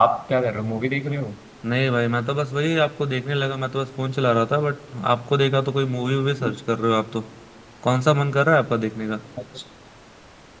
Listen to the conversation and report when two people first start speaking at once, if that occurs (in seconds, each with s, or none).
none